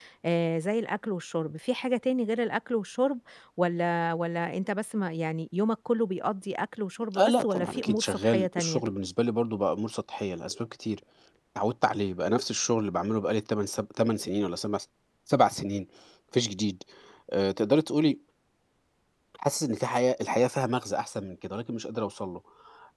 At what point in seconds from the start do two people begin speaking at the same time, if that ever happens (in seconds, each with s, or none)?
7.1 s